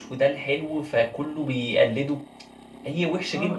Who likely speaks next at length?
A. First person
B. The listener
B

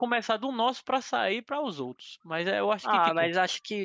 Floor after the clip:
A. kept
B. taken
B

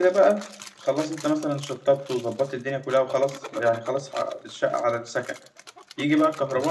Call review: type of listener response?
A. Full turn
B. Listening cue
B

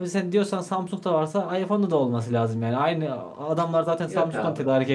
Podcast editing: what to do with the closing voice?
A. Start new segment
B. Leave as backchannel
B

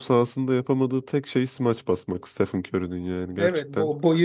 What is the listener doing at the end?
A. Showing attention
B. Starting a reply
B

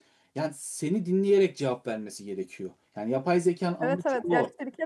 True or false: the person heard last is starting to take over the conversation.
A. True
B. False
A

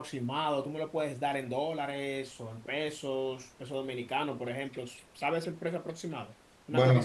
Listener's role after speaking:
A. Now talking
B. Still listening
A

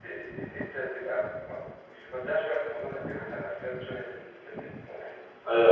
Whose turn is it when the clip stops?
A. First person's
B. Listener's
B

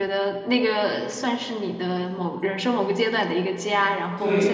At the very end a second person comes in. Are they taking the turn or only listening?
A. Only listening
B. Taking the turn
B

